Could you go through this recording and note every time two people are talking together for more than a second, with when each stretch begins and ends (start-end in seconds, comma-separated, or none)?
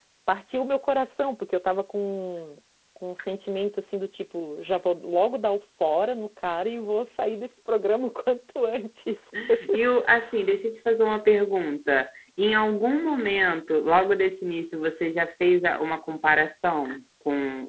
none